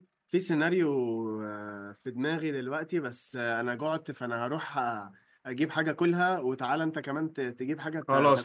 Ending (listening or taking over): taking over